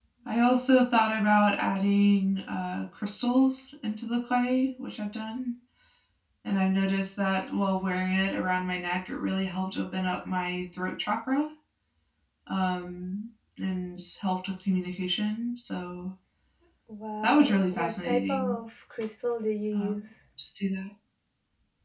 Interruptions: present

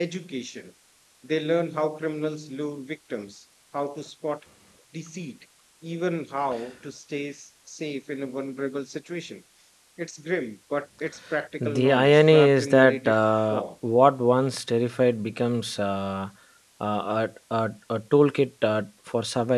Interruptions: present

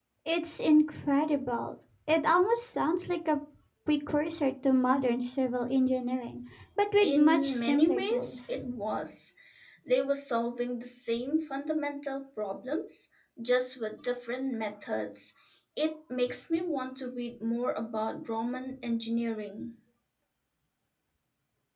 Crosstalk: present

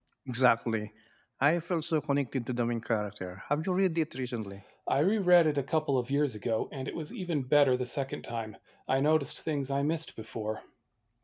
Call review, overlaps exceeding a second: none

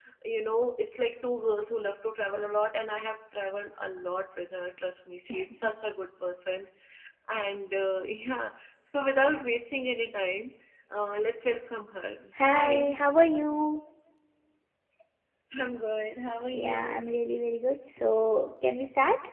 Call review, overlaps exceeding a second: none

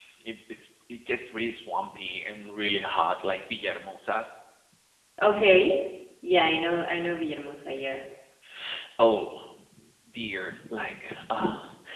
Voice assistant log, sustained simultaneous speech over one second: none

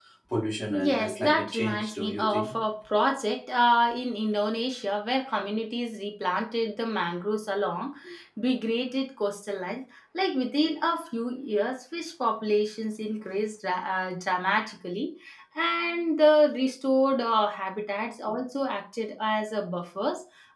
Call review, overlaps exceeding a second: present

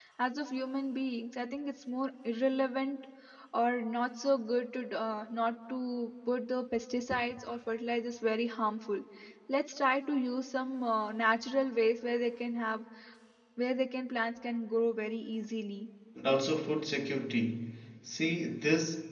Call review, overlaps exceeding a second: none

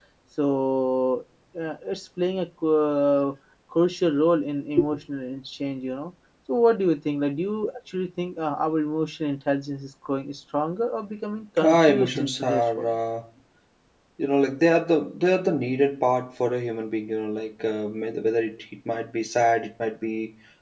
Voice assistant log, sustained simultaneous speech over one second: present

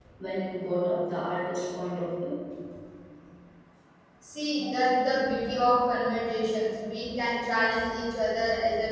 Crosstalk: none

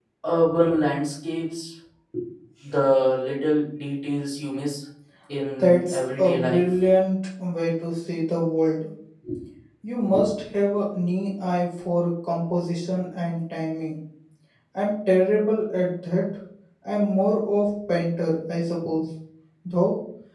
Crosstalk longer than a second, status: present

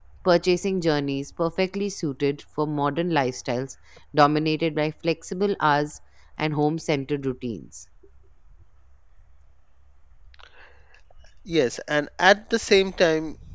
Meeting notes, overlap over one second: none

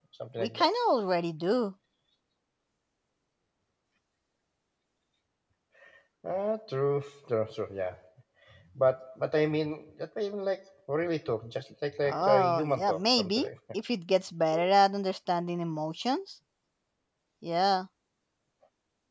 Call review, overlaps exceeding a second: present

